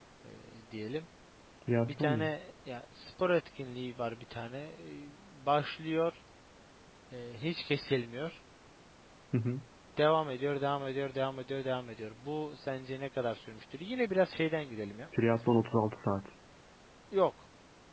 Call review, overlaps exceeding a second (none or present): none